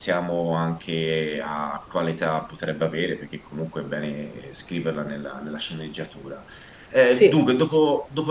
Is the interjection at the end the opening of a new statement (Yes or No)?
No